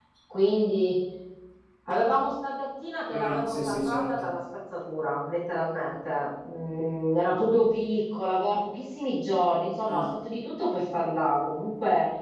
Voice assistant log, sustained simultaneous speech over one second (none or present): present